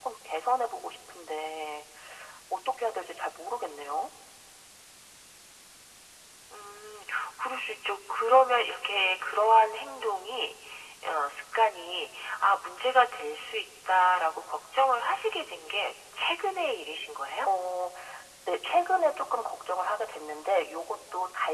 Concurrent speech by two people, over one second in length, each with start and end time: none

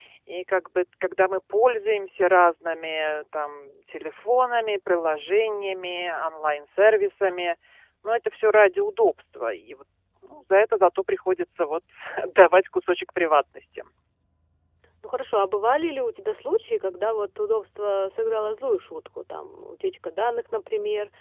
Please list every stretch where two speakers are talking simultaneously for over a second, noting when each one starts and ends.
none

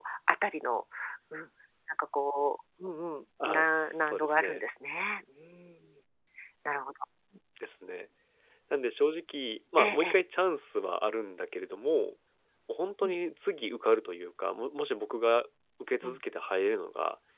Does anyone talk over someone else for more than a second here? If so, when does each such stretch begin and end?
3.4-4.7

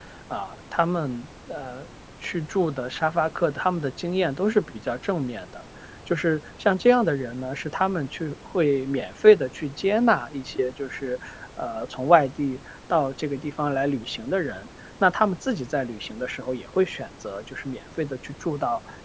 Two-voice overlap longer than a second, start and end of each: none

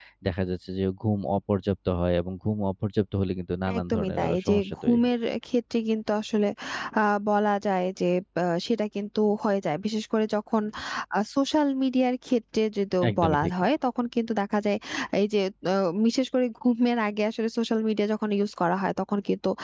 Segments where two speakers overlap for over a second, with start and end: 3.8-5.1

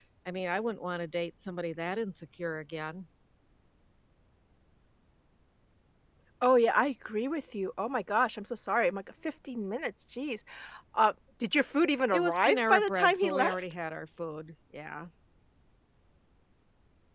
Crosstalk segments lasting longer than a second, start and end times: 12.1-13.6

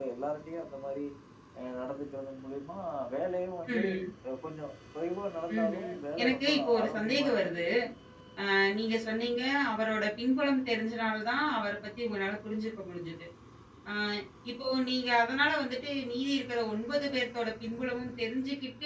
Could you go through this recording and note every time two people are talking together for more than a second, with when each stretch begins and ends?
5.5-7.6

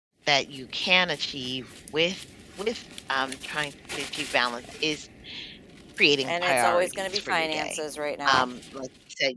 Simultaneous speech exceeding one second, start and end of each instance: 6.2-7.8

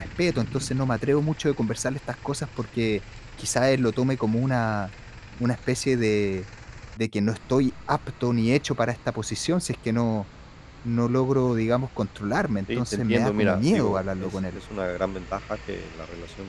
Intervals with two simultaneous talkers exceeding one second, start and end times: 12.8-14.6

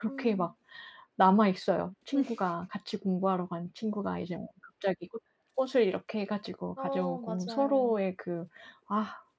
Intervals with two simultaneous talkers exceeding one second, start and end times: 6.8-8.0

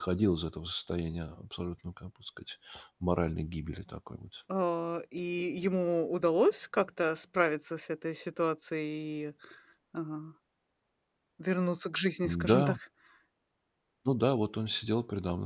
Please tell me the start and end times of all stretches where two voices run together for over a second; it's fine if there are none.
none

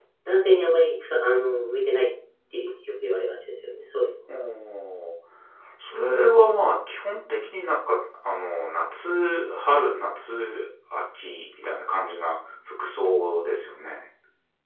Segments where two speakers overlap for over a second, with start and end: none

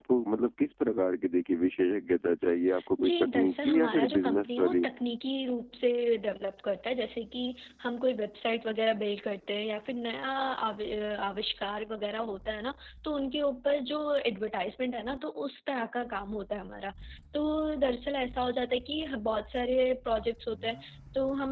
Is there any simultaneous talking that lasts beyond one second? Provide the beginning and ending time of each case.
3.0-4.8

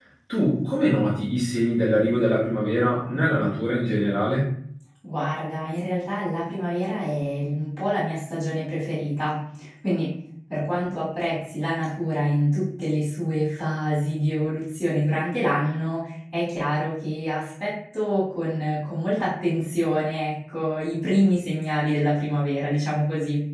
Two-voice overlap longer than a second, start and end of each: none

